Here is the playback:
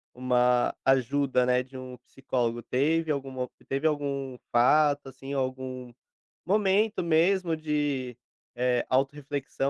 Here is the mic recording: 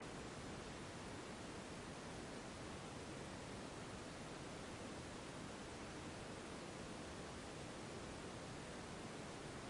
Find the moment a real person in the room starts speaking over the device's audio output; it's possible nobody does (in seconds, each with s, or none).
none